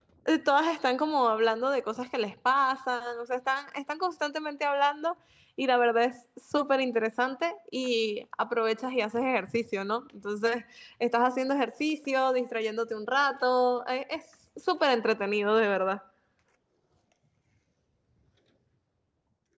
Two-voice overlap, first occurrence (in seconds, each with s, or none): none